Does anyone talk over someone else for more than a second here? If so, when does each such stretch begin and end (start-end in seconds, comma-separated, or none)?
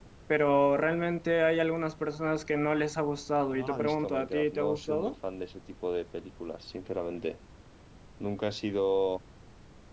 3.5-5.1